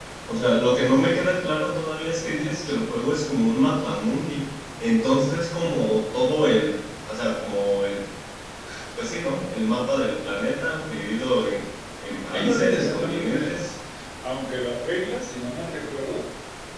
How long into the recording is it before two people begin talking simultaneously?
12 s

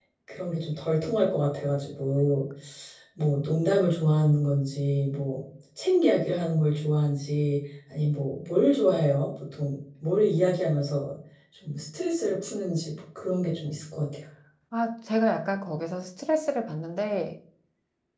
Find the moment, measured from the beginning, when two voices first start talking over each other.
none

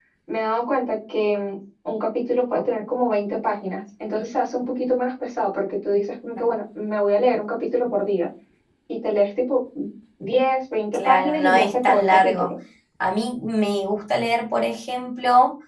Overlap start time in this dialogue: 11 s

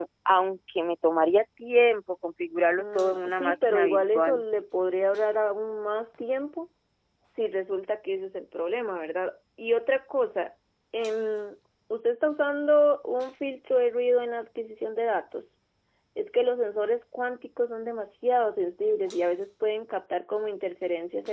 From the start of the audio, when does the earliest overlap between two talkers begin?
3 s

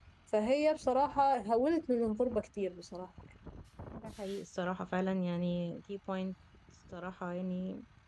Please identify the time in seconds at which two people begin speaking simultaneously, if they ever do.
none

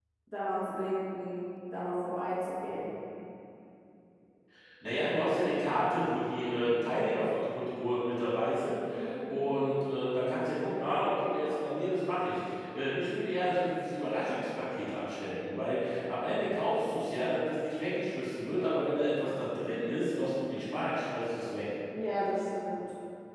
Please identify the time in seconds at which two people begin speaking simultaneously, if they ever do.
none

